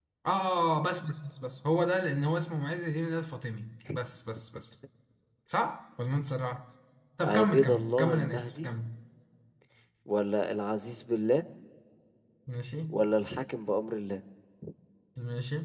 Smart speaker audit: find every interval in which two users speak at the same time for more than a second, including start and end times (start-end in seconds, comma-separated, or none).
7.2-8.7